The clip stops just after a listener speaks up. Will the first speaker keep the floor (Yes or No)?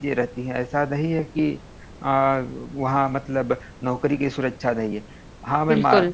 Yes